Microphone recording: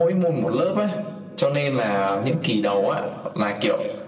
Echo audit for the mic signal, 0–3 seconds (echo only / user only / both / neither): echo only